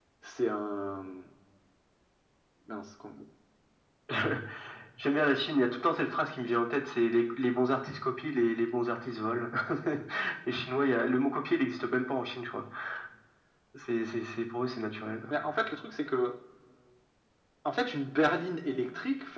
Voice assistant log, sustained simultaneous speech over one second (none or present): none